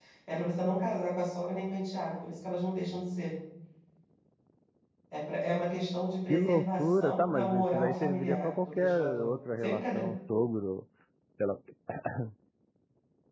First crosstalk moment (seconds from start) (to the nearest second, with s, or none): 6 s